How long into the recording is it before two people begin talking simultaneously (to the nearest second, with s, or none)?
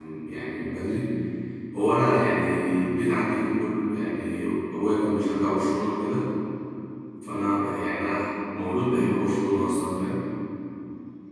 none